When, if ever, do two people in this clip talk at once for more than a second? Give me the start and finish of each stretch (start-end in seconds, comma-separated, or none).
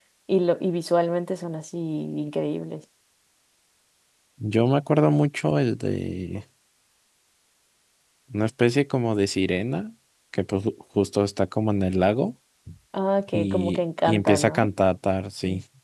13.3-14.7